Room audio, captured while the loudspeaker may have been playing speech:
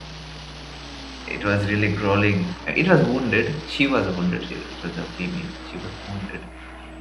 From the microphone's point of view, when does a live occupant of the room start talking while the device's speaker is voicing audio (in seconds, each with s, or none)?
1.2 s